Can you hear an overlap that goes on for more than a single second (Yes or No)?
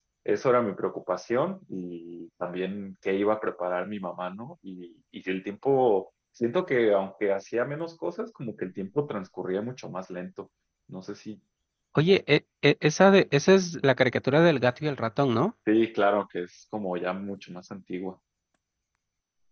No